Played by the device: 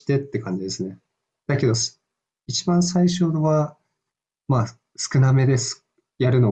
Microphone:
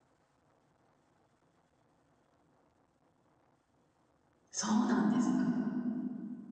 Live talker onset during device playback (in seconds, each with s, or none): 4.5 s